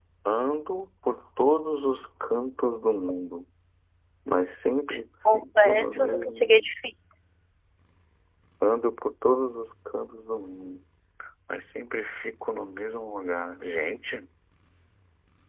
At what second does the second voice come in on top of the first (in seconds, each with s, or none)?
5.3 s